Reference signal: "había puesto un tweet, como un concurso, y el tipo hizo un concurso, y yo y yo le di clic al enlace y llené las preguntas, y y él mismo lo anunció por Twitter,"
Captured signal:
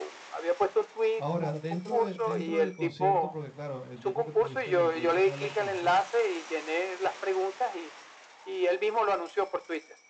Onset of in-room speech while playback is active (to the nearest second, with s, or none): 1 s